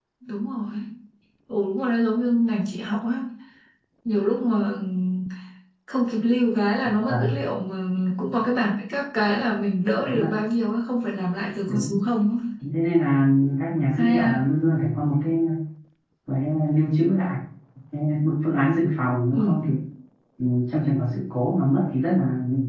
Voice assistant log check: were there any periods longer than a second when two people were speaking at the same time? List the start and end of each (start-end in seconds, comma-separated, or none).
none